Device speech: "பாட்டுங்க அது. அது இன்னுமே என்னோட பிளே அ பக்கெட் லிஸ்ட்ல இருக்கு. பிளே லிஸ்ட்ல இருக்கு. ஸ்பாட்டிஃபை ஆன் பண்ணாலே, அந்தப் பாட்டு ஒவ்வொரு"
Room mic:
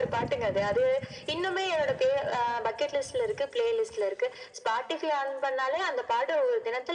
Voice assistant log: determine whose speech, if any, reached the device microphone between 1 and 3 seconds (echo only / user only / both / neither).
echo only